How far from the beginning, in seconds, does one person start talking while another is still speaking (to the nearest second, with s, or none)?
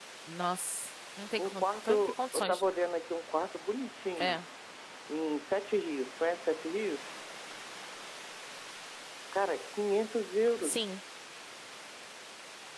1 s